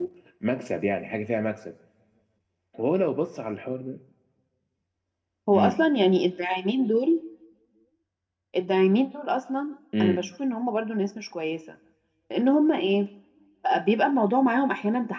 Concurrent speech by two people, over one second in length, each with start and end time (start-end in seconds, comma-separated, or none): none